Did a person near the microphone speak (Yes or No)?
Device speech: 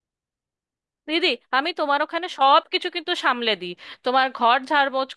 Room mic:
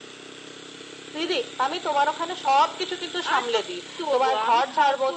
Yes